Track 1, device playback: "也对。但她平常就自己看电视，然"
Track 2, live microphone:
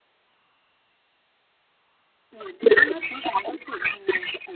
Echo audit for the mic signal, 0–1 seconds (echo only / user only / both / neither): neither